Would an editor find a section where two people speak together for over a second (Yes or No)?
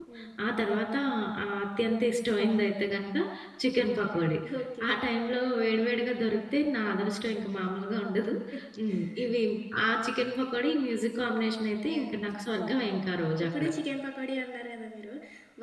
No